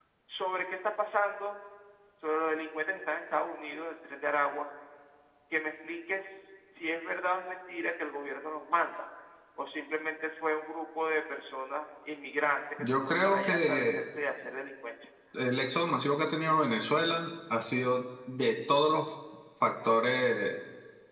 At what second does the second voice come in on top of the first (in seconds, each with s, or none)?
12.8 s